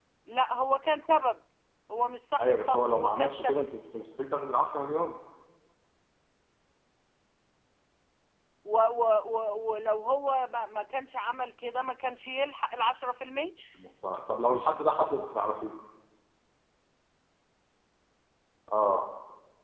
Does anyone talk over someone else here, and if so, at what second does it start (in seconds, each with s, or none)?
2.4 s